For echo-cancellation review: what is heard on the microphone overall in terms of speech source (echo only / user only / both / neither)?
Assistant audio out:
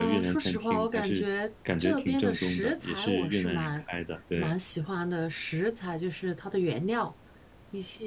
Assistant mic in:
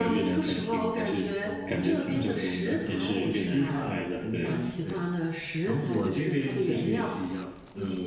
both